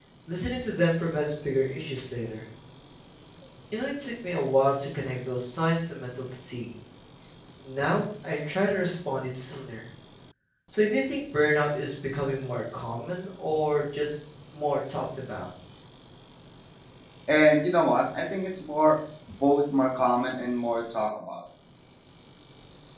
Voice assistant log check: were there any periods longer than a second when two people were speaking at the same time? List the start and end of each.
none

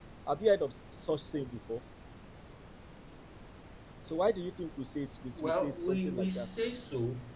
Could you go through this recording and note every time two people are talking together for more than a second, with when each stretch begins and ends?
5.4-6.6

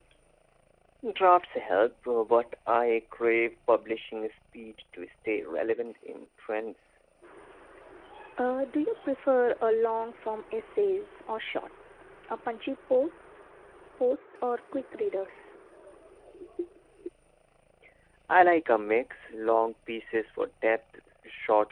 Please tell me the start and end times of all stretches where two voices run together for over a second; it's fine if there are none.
none

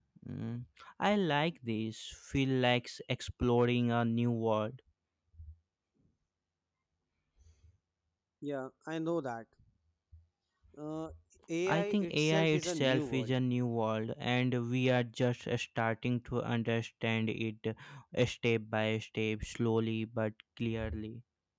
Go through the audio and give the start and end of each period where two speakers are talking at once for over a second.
11.7-13.3

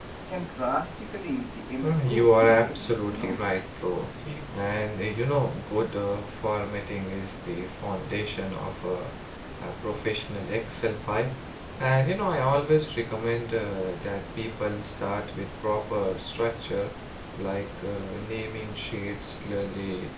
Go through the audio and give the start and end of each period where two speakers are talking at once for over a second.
2.0-3.4

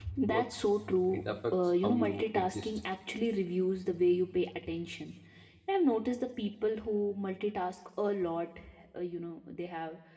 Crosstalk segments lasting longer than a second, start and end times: 1.1-2.7

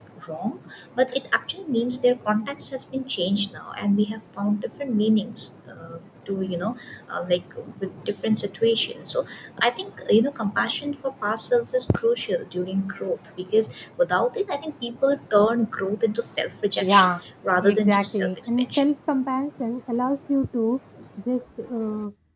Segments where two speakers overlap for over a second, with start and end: 17.6-18.8

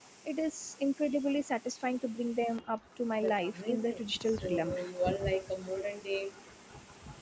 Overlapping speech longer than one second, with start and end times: 3.2-4.8

